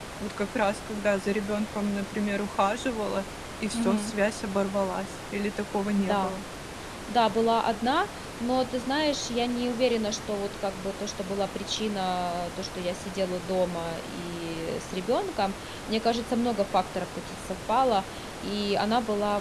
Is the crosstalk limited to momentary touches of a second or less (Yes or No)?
Yes